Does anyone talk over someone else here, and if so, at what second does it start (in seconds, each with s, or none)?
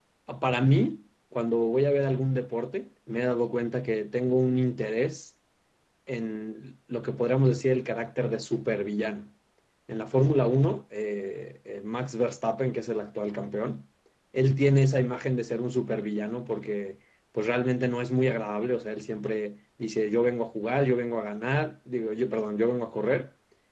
none